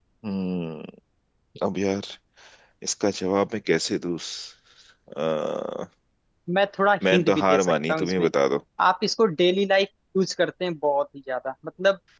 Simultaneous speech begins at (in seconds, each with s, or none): 7.1 s